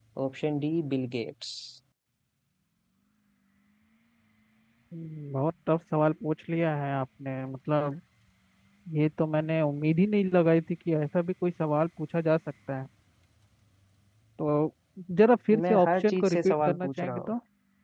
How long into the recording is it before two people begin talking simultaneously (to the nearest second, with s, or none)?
16 s